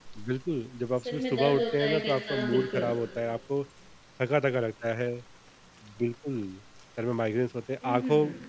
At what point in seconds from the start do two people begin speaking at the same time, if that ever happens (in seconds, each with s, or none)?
1.0 s